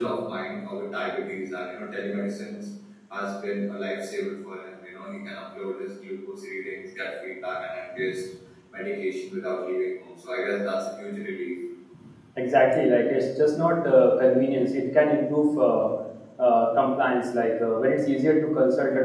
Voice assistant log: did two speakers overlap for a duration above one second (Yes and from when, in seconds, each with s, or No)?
No